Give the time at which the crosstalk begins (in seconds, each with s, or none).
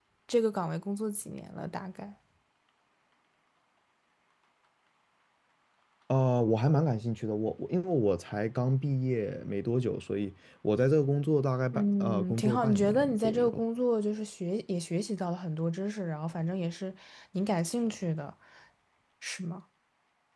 11.7 s